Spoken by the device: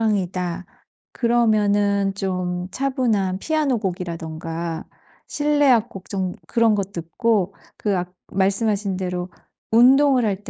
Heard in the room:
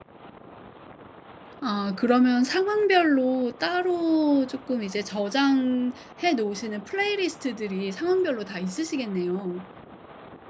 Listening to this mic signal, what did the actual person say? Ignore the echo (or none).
아 그러면 상황별로 따로 쪼끔 이제 저장해 놓으시는 플레이리스트들이 상황별로 다 있으시겠네요.